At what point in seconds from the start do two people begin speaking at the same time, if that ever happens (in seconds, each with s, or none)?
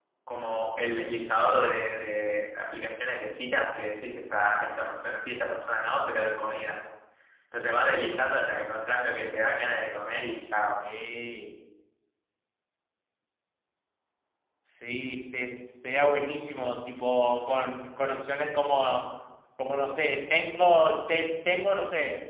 none